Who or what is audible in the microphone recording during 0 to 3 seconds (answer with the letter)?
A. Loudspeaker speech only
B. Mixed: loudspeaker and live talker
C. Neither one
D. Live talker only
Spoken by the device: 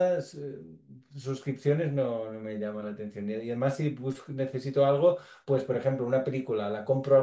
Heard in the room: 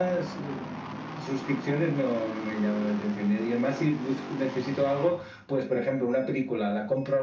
A